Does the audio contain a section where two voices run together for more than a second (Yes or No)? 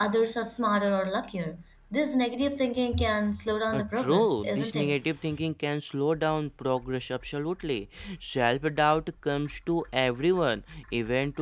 Yes